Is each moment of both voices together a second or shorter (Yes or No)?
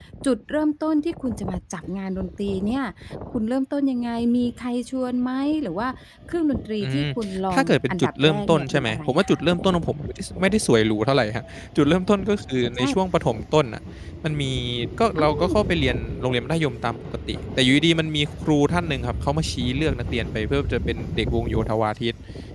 No